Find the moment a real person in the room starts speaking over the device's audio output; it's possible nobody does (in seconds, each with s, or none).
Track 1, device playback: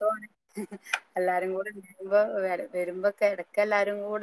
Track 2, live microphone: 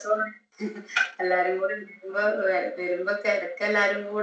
none